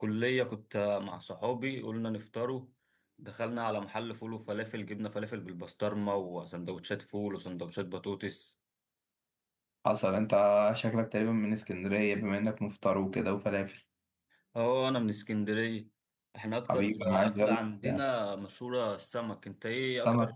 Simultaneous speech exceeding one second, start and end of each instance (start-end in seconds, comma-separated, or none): 16.7-18.0